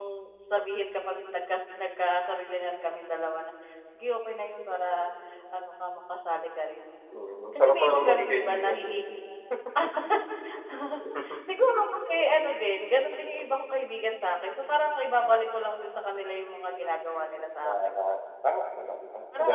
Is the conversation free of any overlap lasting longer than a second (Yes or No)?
No